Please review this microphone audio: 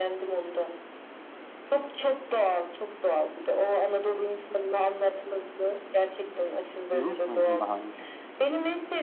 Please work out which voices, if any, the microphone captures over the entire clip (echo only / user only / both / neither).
both